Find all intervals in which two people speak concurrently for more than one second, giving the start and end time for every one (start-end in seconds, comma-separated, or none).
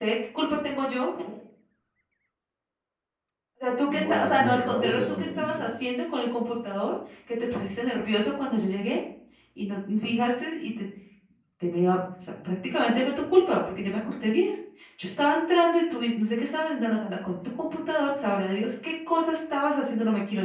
3.9-5.6